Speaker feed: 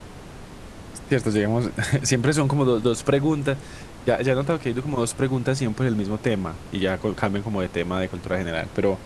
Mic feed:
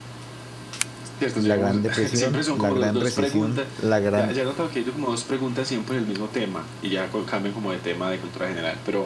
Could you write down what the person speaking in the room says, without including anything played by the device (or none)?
la Gran Depresión, la Gran Recesión, la Gran